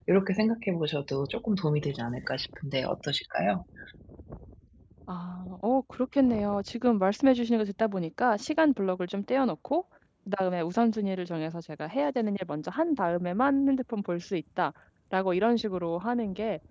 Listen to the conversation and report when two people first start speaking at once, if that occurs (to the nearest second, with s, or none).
none